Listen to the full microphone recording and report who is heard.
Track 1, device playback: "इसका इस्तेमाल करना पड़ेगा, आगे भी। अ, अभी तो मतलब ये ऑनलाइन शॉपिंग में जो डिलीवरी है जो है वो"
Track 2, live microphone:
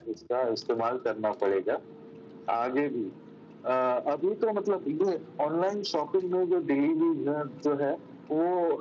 echo only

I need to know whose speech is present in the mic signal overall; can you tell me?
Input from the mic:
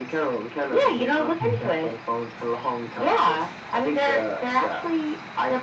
both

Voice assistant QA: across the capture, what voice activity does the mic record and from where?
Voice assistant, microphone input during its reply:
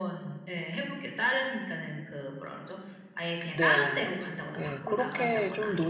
both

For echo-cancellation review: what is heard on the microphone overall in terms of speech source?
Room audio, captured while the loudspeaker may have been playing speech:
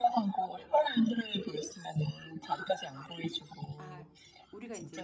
both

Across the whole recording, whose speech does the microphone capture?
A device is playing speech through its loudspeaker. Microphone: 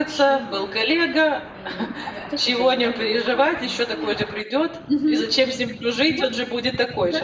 echo only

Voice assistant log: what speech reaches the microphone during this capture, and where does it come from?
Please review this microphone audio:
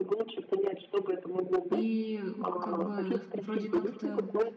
both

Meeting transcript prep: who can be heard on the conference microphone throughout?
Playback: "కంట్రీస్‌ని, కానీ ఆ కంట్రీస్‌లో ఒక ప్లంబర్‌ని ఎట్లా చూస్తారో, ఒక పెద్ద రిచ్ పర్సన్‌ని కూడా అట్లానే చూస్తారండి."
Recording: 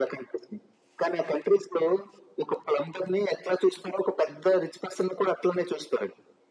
echo only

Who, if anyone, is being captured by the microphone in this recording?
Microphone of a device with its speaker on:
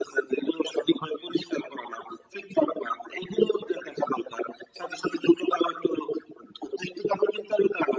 echo only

